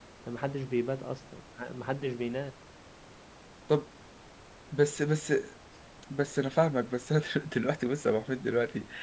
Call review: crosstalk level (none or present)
none